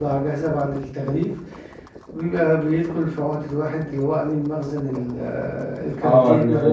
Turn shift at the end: Yes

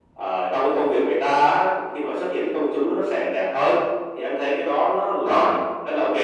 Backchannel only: Yes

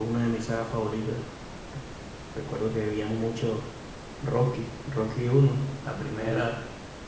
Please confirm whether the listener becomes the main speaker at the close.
No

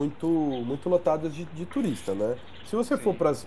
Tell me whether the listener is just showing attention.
Yes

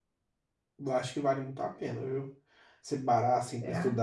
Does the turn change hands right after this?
No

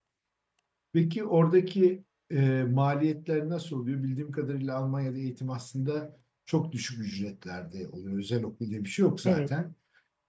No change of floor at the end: Yes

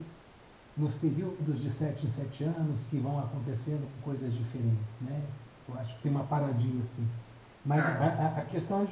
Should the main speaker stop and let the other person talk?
No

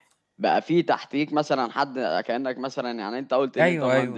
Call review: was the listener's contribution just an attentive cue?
Yes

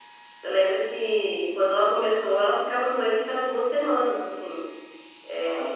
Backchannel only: Yes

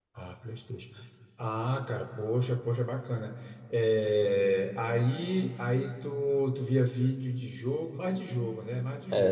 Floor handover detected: Yes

